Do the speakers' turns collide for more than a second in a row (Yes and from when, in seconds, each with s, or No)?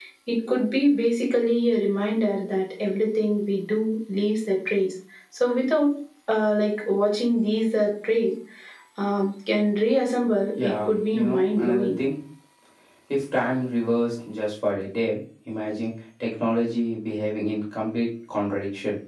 Yes, from 10.6 s